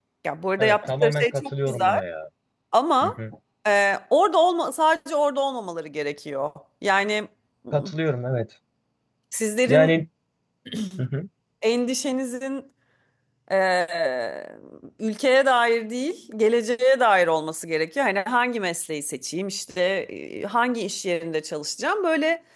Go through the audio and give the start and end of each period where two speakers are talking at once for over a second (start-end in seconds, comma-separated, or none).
0.6-2.0